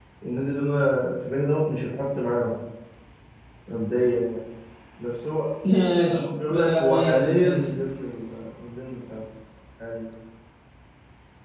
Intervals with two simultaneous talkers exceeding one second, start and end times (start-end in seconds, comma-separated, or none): 6.1-7.7